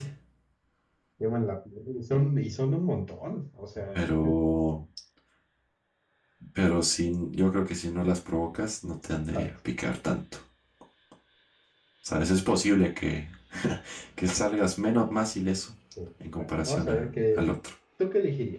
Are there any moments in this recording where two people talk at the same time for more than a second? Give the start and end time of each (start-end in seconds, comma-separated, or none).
16.4-17.6